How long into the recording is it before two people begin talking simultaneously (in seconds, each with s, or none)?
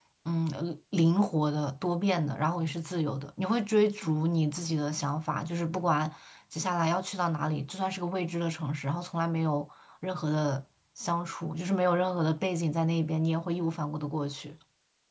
none